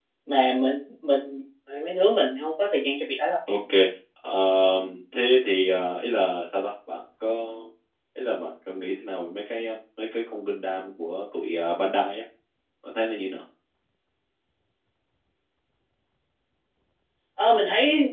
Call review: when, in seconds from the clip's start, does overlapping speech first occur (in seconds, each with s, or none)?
none